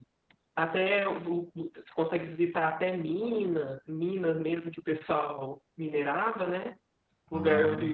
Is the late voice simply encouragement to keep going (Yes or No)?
Yes